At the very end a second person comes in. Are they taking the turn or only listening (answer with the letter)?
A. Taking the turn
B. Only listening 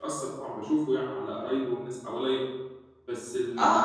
A